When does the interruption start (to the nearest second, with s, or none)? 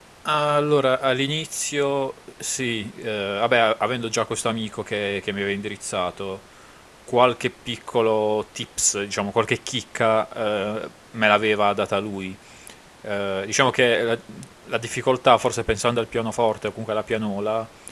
none